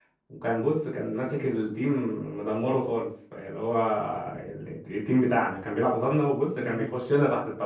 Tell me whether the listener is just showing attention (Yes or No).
Yes